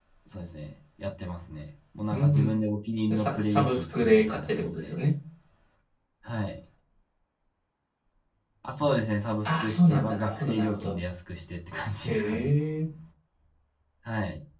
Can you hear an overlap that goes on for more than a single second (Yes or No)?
Yes